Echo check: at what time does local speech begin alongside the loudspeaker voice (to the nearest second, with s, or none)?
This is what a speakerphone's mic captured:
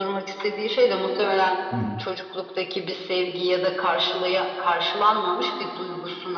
2 s